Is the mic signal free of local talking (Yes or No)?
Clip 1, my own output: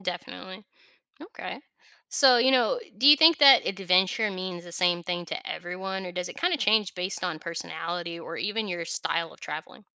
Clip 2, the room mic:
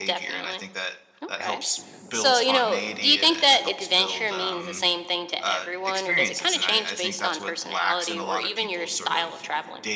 No